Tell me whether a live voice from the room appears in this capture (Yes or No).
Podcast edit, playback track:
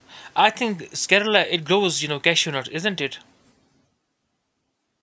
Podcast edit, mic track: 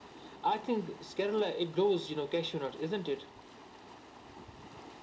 No